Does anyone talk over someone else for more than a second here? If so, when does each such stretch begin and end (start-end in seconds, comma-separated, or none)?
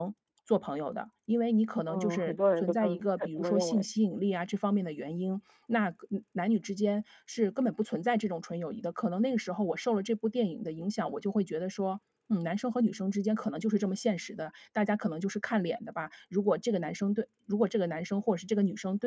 1.9-3.9